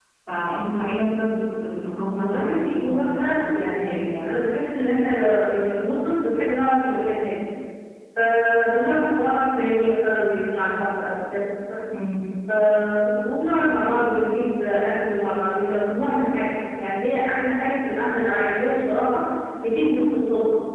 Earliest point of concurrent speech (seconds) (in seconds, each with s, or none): 2.2 s